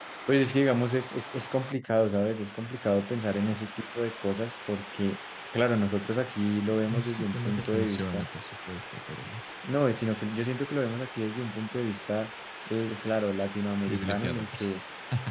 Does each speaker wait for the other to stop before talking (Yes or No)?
No